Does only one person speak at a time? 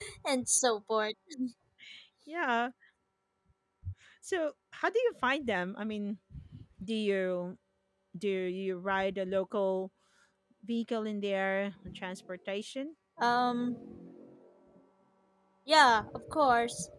Yes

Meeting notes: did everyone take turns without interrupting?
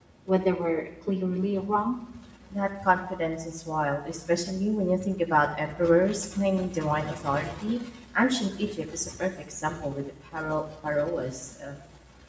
Yes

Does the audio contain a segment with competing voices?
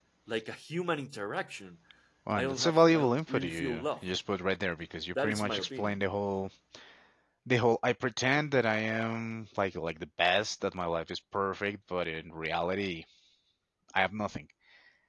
Yes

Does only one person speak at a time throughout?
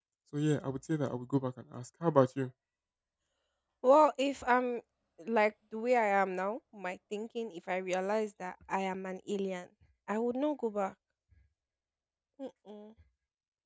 Yes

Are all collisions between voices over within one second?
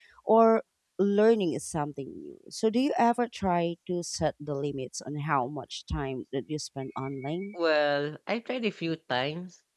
Yes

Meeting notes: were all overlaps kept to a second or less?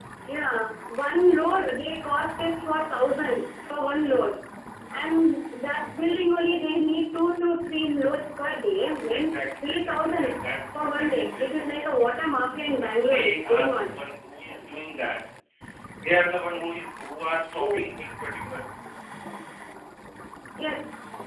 No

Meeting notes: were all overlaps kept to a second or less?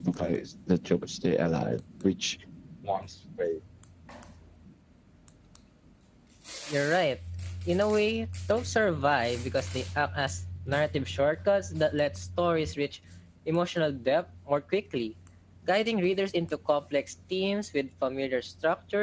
Yes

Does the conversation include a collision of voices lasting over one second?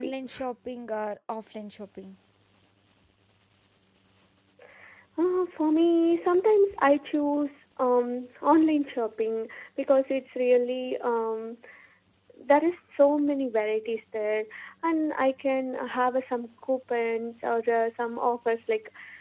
No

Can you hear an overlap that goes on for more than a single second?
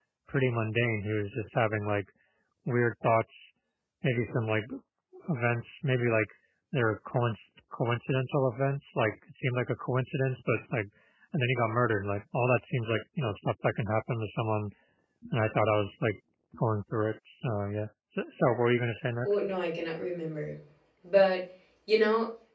No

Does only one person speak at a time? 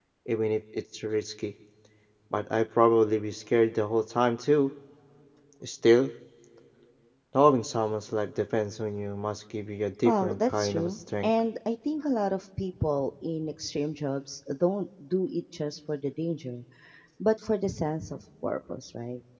No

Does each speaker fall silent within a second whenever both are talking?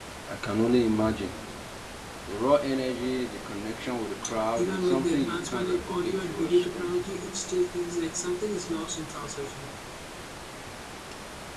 No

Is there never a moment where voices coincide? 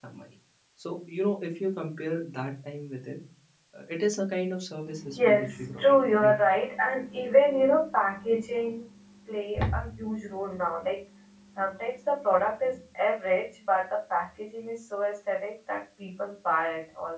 No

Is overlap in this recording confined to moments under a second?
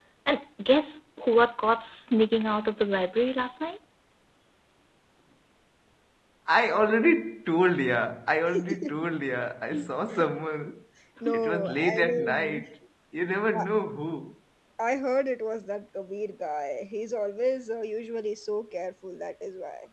No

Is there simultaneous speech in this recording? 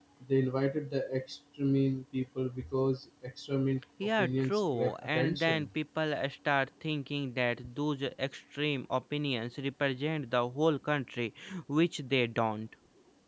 Yes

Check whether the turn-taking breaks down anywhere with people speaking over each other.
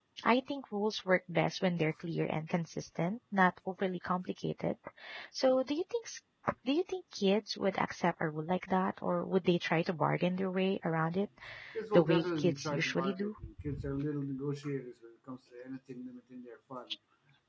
Yes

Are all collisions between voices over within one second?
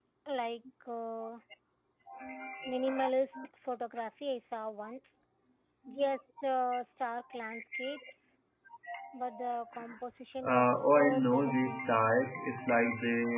No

